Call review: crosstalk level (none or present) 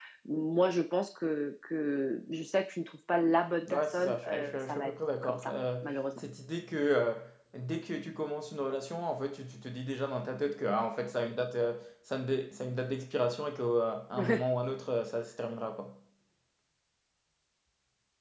present